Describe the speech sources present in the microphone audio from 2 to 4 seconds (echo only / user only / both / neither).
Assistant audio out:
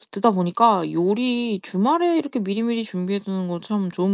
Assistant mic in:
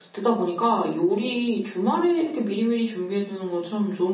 echo only